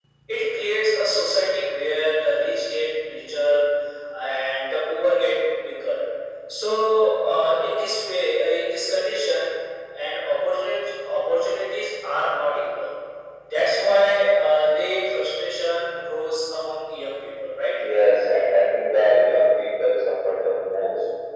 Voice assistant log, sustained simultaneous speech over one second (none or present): none